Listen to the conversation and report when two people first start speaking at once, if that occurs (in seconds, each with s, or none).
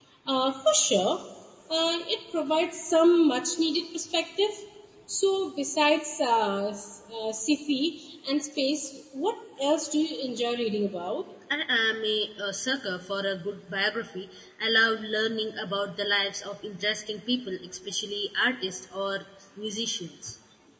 none